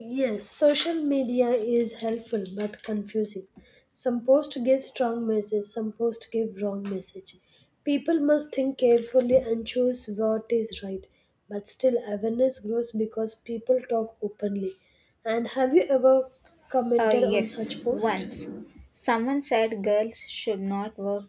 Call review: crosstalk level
present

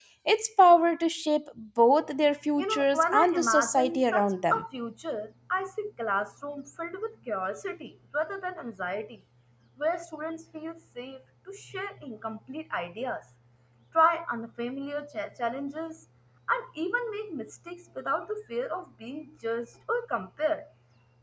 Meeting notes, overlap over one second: present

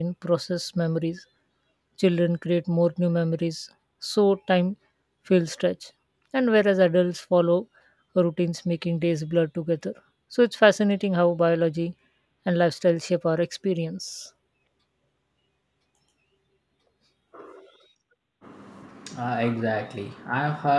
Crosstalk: none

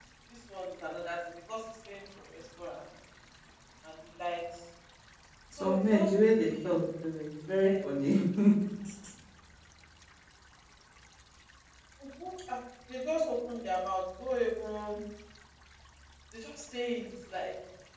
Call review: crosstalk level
present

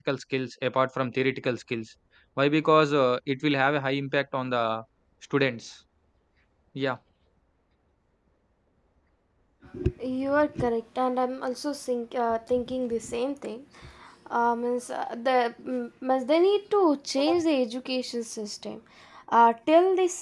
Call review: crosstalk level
none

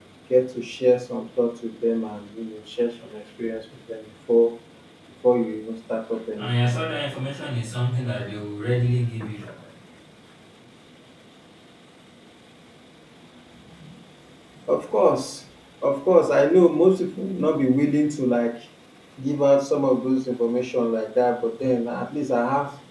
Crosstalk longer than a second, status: none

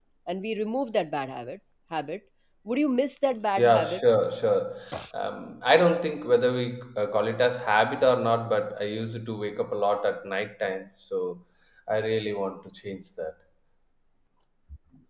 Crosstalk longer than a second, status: none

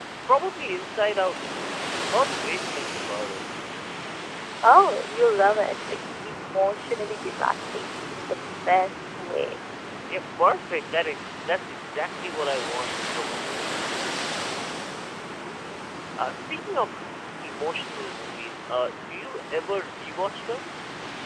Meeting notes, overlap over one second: none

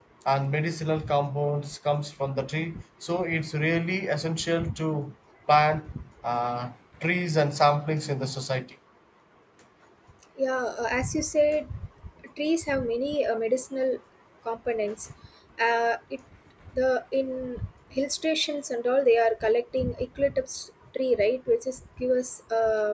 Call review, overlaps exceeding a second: none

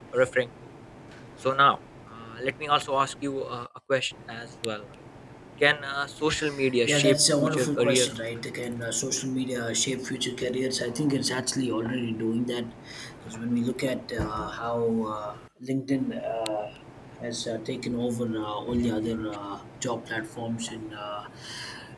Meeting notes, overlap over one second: present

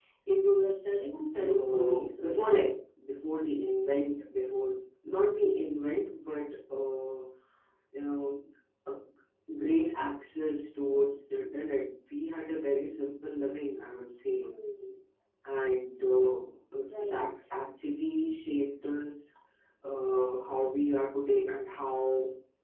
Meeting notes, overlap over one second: present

